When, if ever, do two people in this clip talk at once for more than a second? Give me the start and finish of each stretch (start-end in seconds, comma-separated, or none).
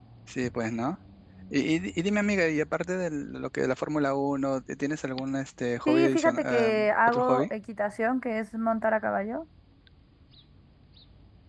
5.8-7.5